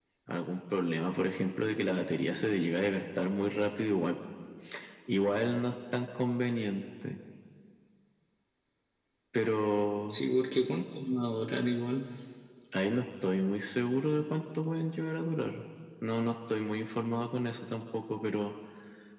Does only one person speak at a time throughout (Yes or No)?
Yes